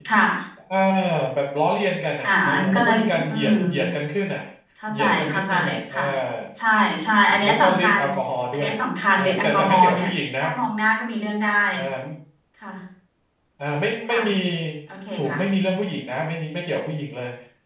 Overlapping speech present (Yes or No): Yes